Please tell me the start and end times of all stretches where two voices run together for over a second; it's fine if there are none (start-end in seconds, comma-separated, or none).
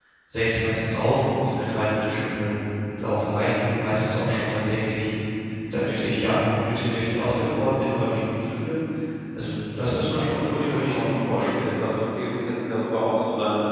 10.2-11.7